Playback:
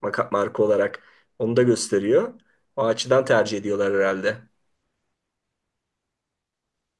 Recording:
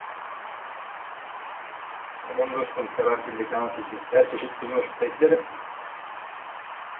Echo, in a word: none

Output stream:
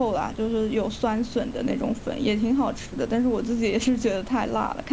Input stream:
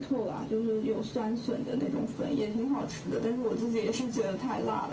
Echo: present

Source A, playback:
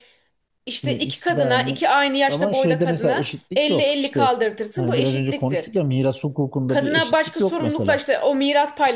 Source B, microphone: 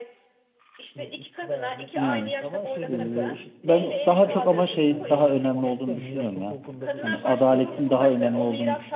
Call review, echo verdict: present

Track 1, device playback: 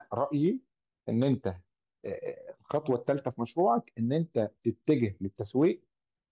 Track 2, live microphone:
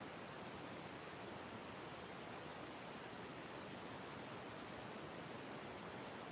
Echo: none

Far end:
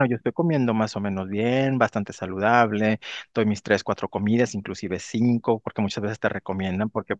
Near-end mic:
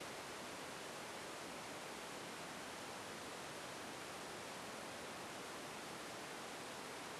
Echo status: none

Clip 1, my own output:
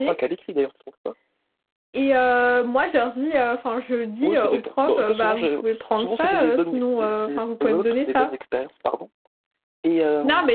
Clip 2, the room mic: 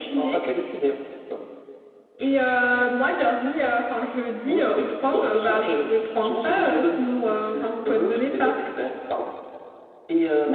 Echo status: present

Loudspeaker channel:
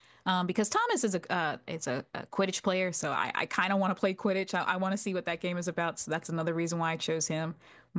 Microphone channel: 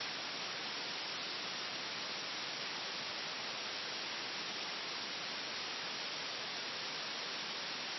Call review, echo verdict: none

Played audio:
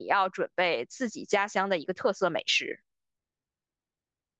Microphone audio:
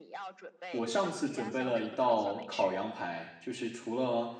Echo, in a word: present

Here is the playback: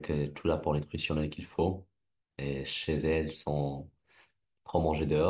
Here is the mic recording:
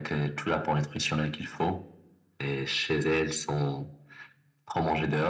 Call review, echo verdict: present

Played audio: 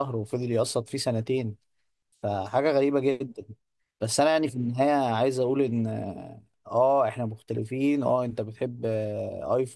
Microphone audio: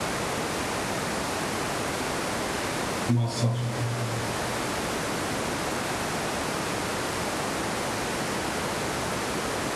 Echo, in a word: none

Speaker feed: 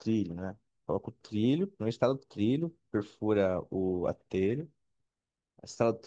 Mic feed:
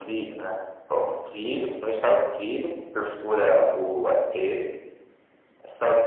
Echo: present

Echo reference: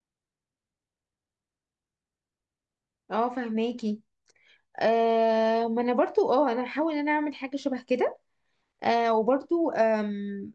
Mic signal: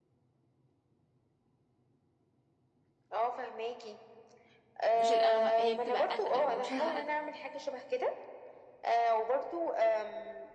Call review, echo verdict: present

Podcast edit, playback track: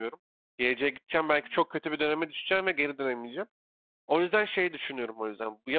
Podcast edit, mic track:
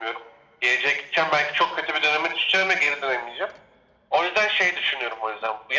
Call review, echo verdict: present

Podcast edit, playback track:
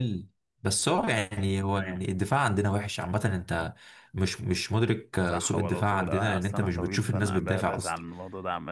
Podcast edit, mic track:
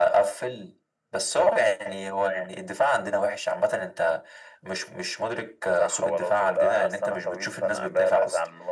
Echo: present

